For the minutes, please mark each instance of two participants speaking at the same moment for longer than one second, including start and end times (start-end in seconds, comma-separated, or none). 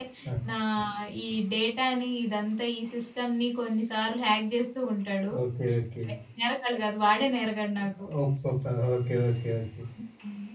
none